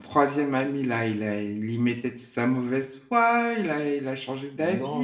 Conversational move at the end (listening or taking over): taking over